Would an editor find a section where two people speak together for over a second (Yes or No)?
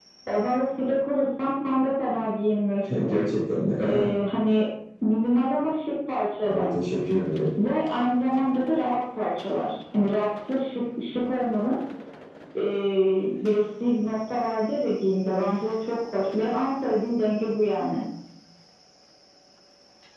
No